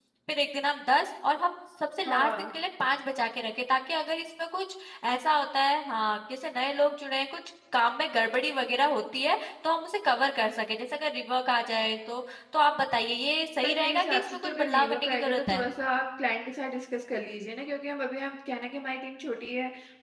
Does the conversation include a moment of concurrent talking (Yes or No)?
Yes